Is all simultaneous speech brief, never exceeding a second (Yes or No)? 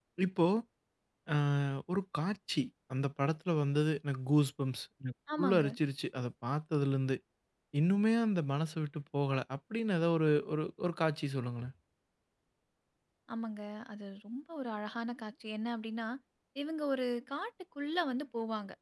Yes